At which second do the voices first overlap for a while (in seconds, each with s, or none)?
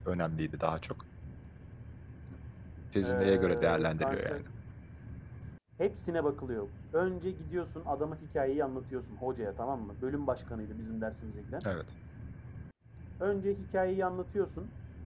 3.0 s